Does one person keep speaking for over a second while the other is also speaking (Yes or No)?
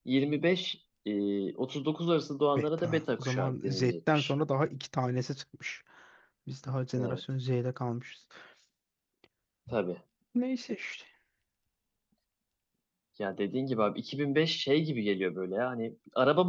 Yes